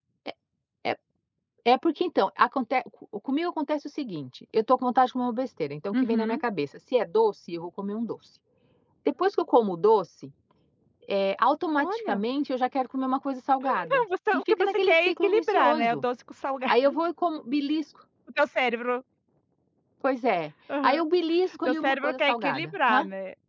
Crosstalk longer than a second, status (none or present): present